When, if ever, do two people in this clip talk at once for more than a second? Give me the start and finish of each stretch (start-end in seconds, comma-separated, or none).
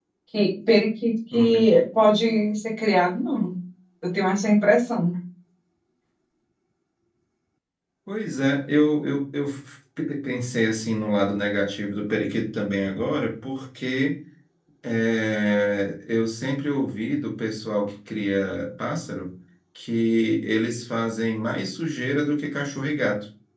none